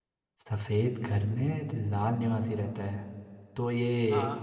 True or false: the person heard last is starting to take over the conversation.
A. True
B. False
B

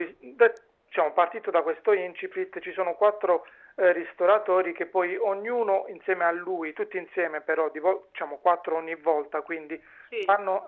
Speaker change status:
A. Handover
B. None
B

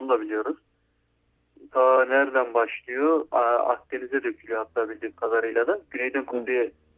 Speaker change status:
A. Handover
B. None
B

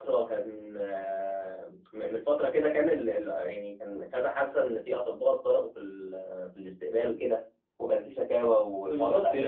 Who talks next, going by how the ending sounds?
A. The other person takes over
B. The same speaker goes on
A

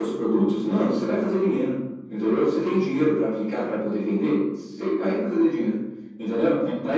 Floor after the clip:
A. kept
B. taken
A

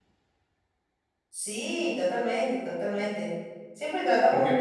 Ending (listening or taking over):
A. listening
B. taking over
A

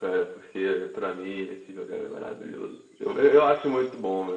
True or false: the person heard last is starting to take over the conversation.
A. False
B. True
A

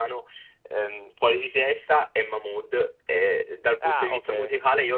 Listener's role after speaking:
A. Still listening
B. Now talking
A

